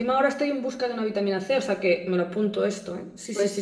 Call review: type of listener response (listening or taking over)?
taking over